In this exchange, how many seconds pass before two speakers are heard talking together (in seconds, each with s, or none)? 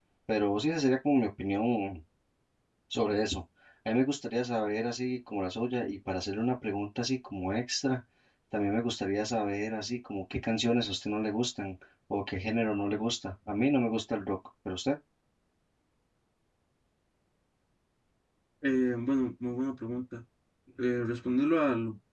none